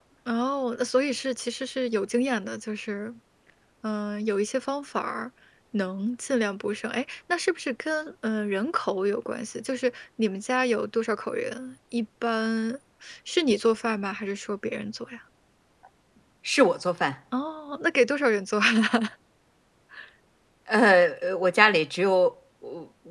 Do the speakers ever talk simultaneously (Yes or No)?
No